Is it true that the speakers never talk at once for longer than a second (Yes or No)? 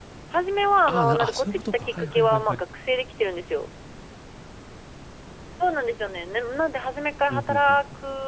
No